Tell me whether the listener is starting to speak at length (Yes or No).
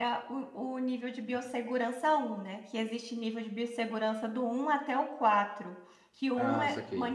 No